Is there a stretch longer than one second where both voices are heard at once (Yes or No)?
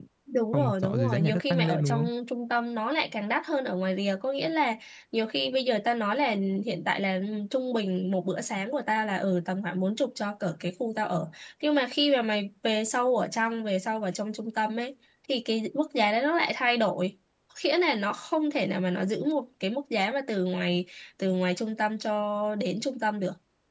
Yes